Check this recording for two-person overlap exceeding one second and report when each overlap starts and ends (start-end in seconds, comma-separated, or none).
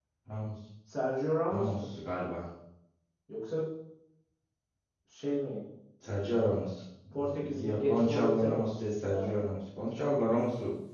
7.4-9.3